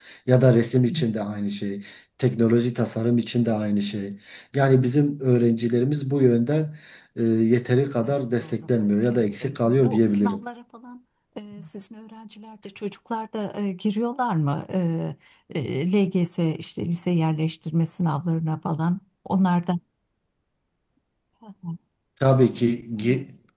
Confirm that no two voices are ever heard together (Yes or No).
No